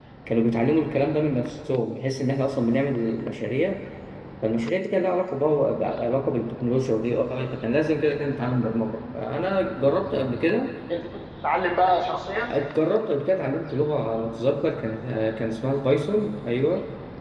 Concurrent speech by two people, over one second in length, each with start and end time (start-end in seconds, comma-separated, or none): none